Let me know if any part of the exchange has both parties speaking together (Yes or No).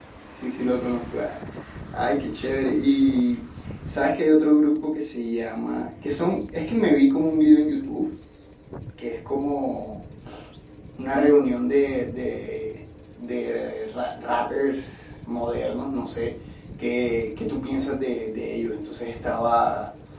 No